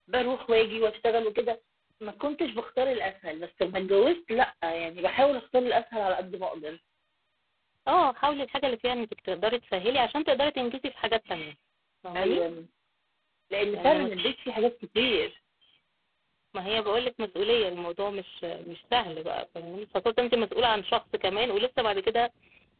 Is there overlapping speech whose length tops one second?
No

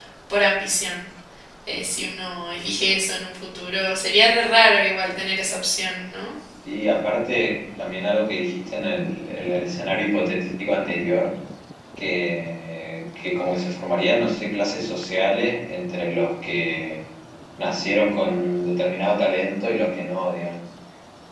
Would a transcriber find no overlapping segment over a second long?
Yes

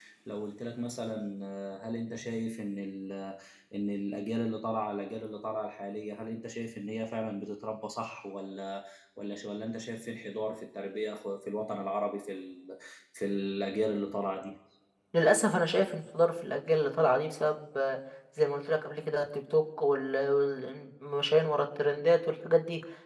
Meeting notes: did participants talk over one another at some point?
No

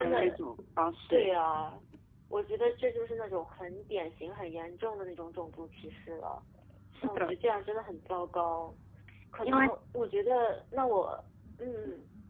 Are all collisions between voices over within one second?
Yes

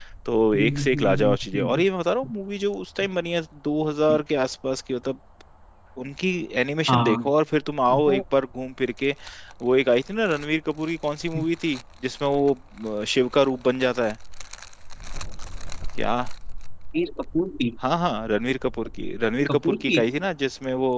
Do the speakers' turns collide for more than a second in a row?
Yes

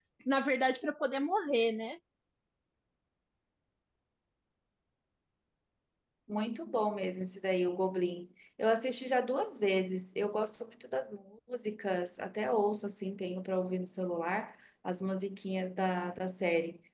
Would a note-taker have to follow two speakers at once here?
No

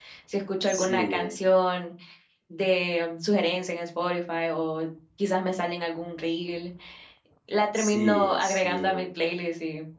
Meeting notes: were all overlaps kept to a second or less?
No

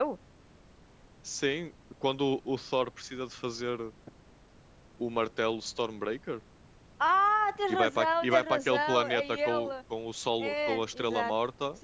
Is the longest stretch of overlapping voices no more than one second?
No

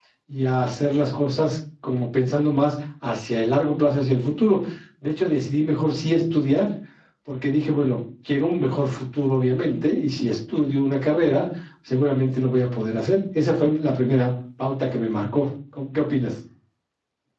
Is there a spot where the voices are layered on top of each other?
No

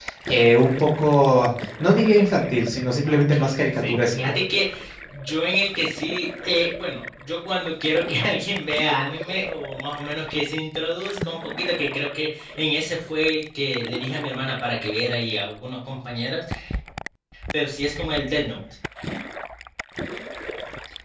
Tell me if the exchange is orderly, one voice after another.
No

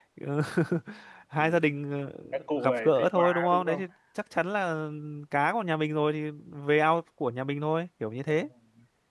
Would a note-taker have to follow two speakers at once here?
Yes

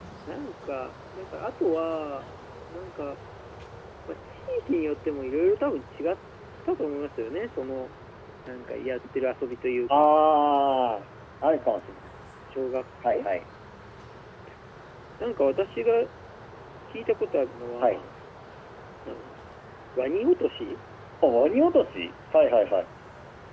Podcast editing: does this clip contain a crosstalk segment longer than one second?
No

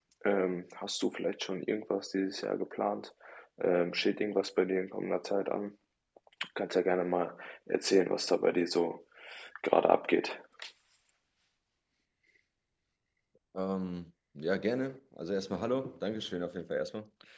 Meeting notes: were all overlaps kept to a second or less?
Yes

